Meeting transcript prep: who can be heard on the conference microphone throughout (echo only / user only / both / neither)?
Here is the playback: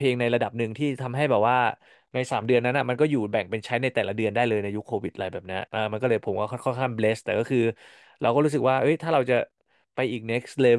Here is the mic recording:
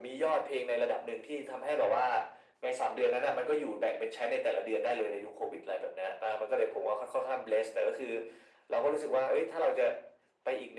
echo only